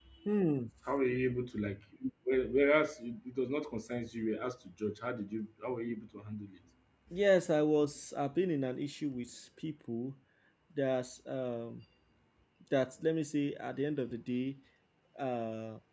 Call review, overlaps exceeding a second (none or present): none